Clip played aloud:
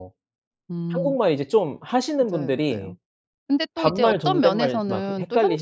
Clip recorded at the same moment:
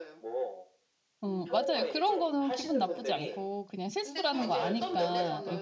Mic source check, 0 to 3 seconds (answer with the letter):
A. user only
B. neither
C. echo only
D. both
D